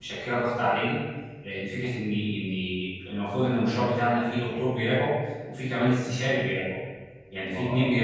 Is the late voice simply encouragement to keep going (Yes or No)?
Yes